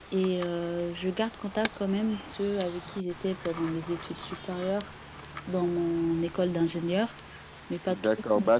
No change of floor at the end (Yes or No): No